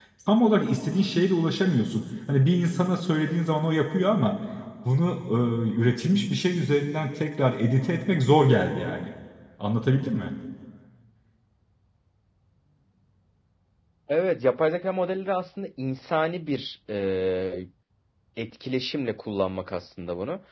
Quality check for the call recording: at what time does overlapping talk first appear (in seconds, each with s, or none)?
none